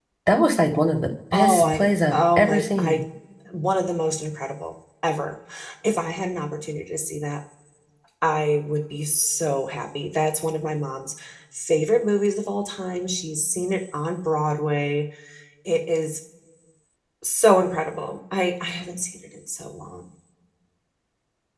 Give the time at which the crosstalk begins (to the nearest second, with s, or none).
1 s